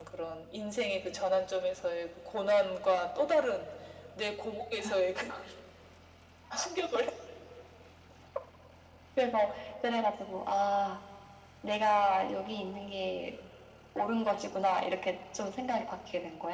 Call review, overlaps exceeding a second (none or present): none